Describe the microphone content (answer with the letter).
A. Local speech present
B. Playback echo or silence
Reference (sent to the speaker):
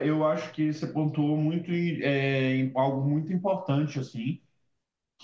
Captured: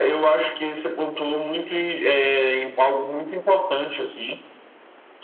B